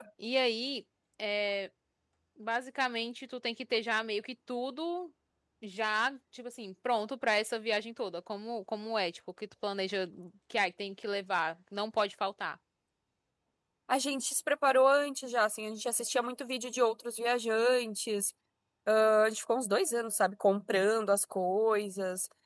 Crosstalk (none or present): none